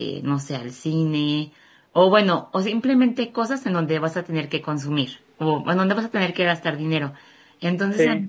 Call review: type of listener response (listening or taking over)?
listening